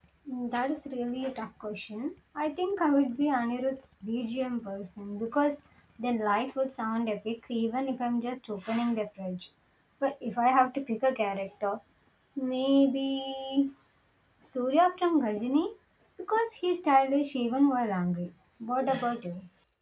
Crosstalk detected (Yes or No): No